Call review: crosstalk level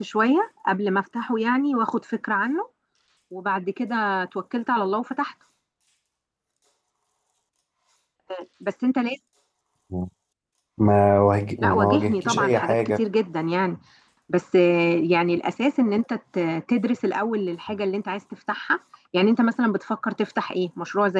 present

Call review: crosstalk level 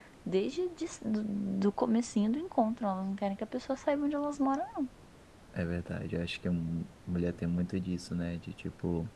none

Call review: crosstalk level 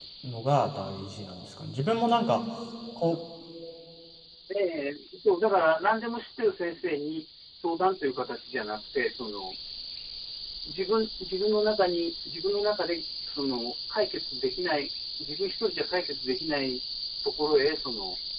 none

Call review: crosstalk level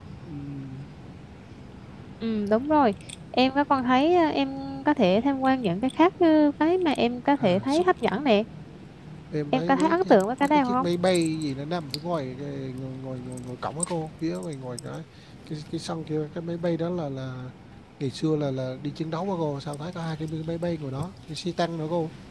present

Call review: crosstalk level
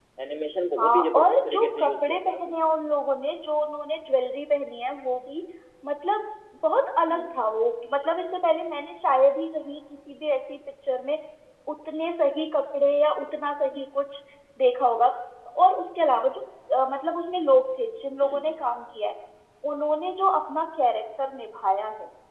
present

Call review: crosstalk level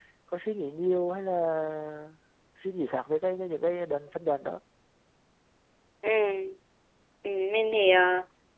none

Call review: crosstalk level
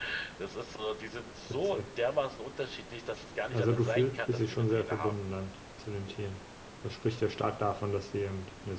present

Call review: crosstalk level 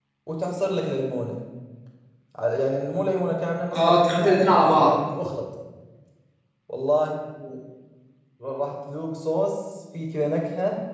present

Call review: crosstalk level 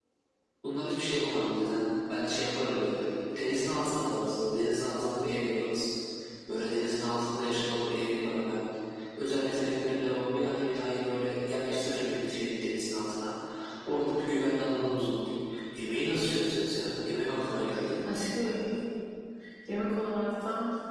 none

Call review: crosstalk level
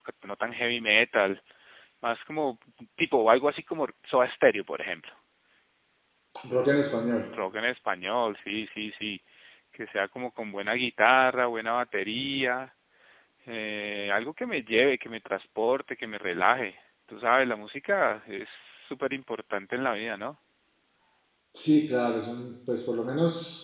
none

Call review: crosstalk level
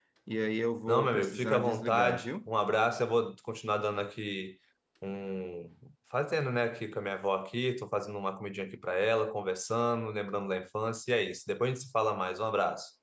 present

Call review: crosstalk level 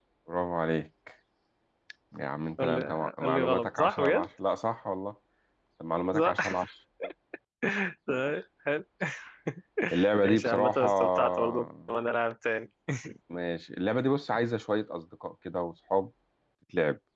present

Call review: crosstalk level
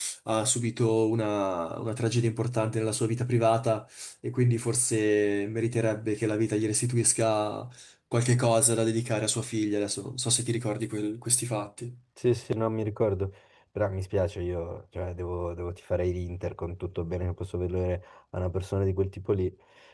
none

